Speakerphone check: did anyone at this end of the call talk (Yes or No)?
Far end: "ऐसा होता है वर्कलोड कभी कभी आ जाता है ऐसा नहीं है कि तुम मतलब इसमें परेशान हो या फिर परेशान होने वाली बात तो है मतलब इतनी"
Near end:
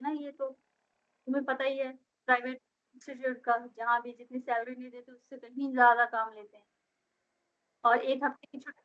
Yes